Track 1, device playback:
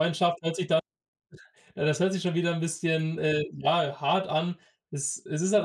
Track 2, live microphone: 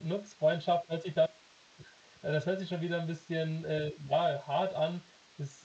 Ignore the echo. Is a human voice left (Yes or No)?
No